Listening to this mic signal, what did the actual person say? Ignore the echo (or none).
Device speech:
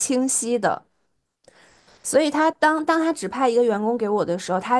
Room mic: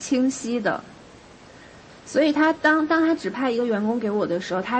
none